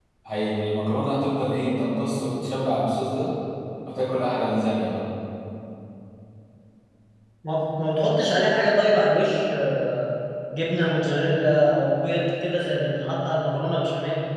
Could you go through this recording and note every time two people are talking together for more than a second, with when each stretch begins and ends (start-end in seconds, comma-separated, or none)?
none